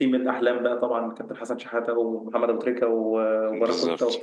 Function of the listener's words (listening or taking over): listening